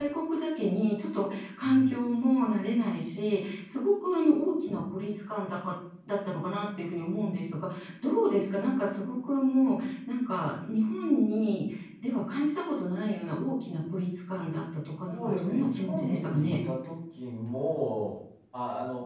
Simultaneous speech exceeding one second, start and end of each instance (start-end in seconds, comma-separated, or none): 15.1-16.6